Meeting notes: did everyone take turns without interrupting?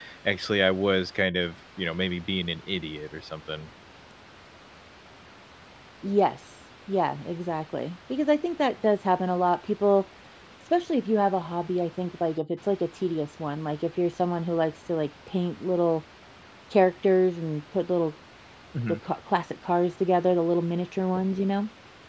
Yes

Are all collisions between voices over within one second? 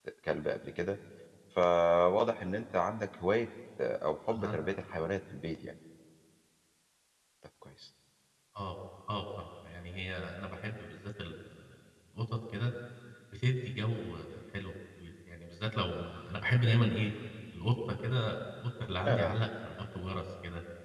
Yes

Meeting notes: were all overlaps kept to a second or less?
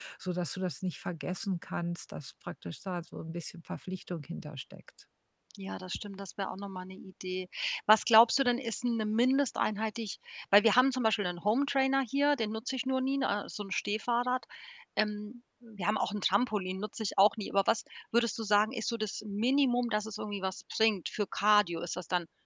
Yes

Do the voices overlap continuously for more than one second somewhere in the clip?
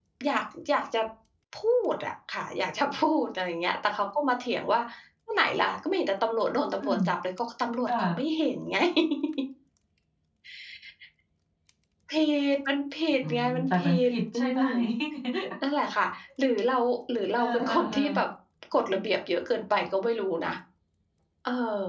Yes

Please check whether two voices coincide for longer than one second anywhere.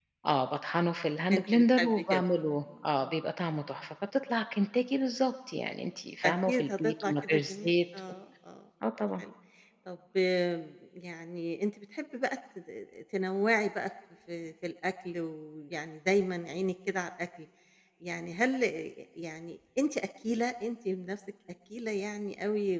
Yes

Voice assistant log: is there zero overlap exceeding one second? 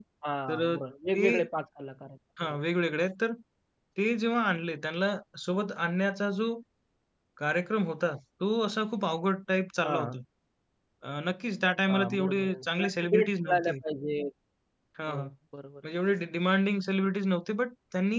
No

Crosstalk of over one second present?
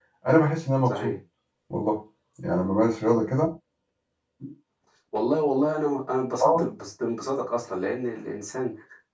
No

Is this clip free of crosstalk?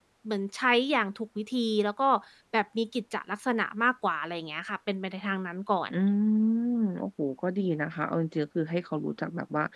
Yes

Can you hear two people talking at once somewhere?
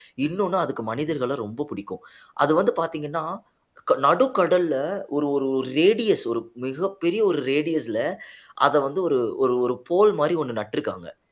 No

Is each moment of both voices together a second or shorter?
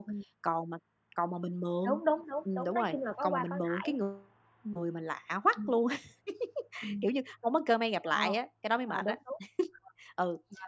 No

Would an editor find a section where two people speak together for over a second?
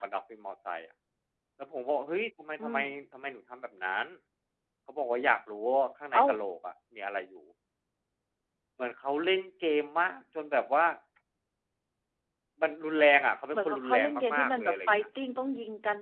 Yes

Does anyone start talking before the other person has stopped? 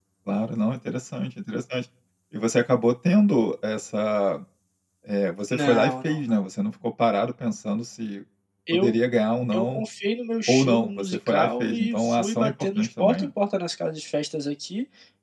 Yes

